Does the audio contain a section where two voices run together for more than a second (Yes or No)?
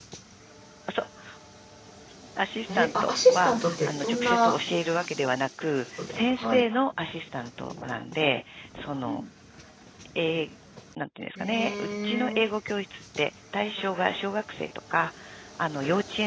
Yes